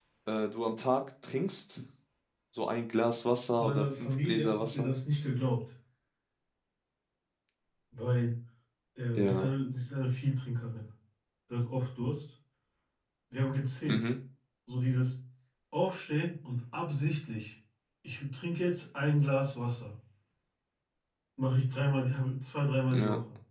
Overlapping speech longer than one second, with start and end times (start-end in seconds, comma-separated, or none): 3.6-4.9